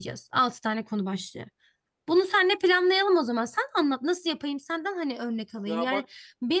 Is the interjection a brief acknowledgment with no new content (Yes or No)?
Yes